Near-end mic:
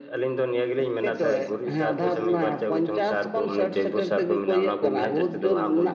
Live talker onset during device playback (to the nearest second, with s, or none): none